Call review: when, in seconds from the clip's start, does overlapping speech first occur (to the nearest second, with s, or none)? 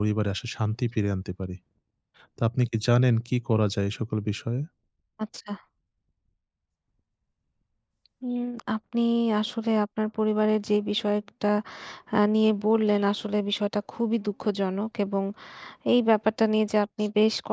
none